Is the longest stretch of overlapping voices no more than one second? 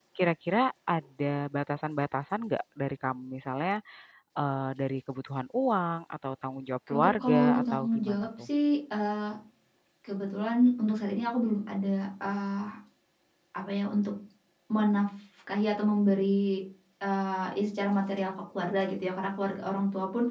No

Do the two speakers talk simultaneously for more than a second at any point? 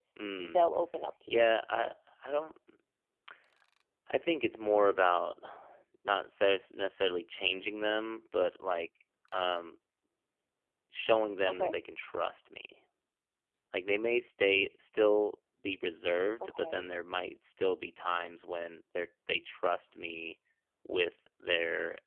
No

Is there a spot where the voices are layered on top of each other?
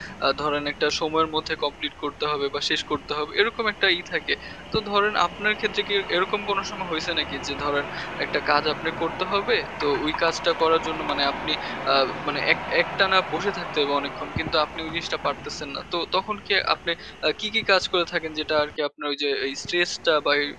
No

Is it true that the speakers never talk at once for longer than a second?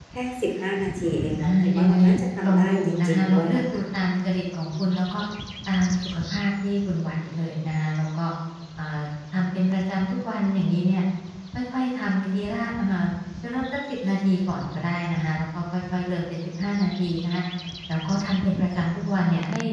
No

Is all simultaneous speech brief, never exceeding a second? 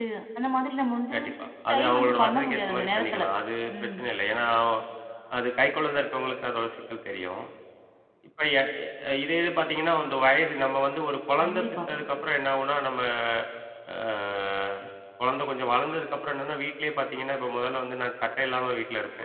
No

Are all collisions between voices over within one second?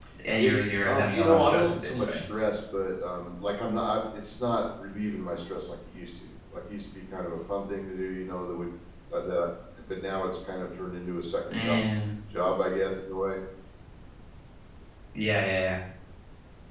No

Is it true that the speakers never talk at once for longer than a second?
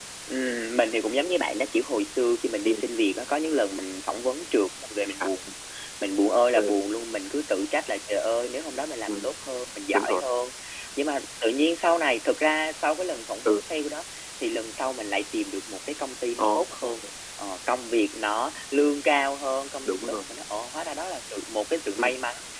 Yes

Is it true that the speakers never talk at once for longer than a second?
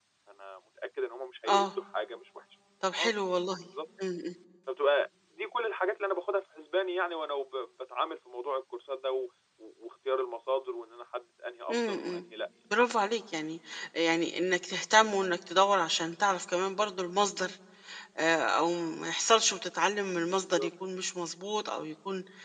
Yes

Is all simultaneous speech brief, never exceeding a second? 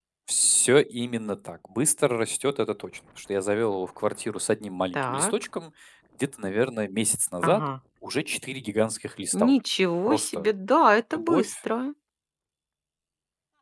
Yes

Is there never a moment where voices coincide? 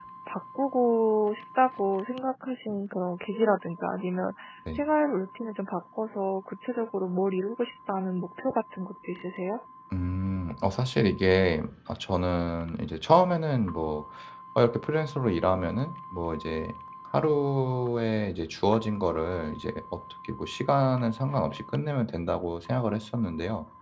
Yes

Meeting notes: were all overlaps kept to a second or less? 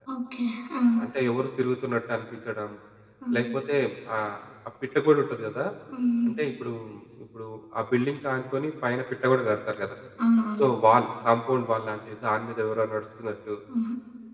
Yes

